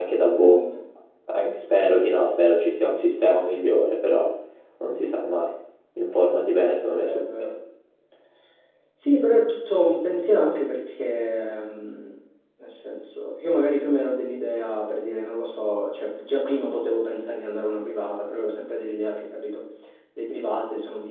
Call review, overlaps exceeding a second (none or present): none